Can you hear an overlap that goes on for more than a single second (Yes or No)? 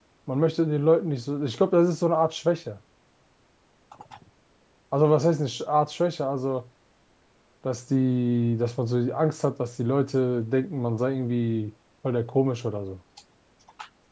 No